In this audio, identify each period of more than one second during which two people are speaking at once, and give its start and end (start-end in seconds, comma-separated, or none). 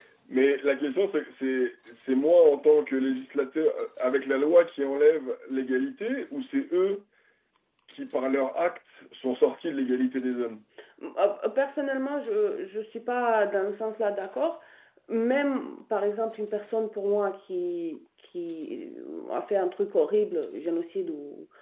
none